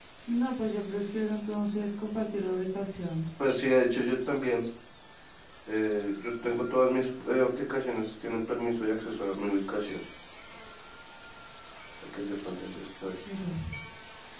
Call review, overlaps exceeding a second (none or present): none